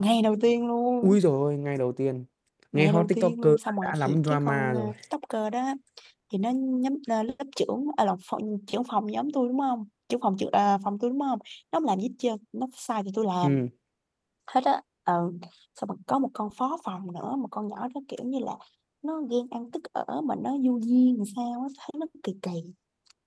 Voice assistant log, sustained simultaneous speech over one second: present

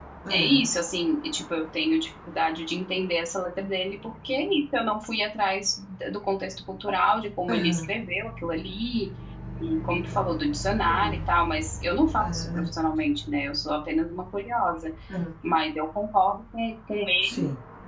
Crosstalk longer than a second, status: none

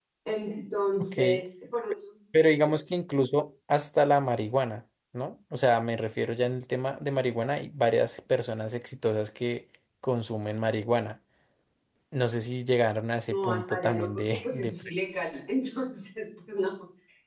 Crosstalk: present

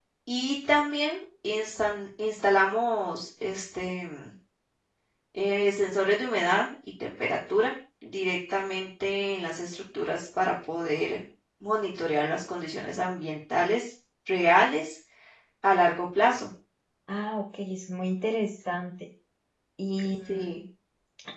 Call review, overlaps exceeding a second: none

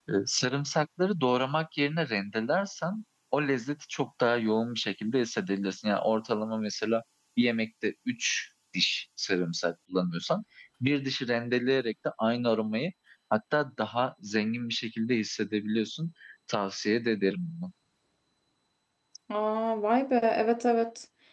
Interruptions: none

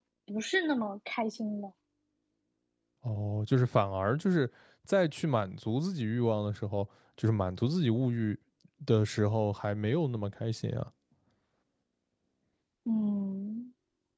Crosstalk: none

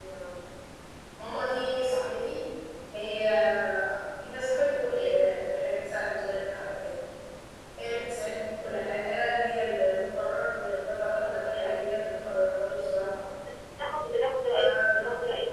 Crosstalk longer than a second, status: none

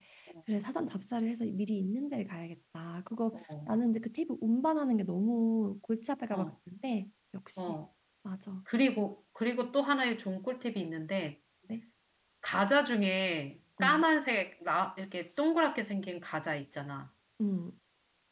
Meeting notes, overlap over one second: none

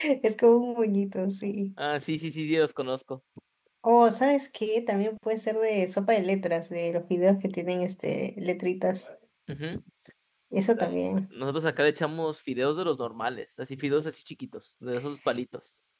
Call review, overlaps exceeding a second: none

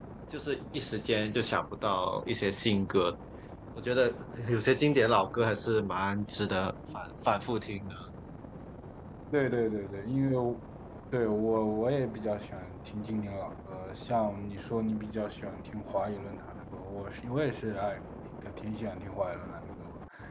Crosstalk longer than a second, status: none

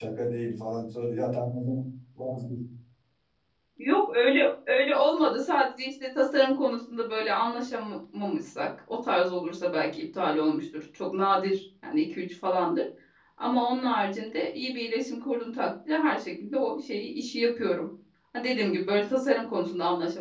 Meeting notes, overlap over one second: none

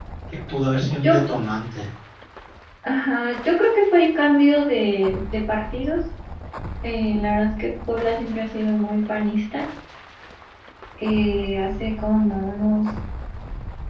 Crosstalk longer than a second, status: none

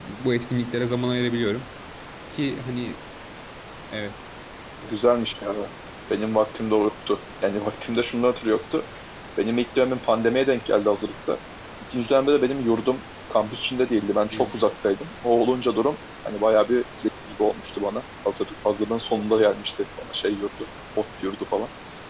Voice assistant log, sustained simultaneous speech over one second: none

